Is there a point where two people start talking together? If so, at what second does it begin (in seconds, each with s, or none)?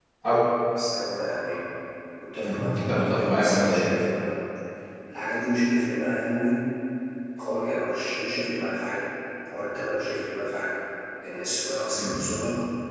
2.4 s